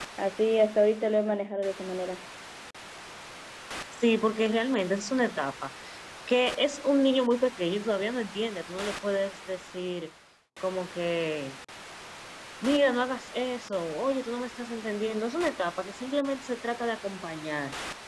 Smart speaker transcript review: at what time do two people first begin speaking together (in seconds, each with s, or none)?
none